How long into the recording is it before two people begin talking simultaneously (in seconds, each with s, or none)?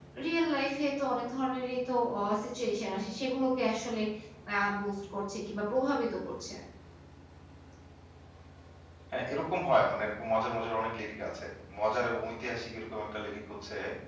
none